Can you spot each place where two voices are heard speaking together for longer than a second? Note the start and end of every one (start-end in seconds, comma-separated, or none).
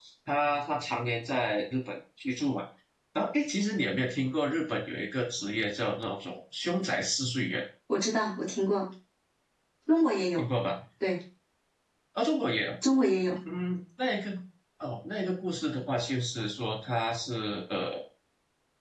none